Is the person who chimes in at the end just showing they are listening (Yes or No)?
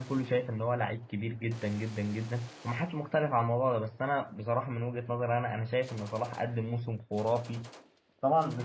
Yes